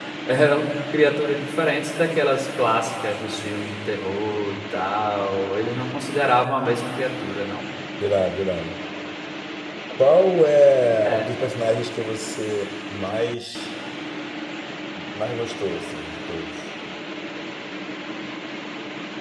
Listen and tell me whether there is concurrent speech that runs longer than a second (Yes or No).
No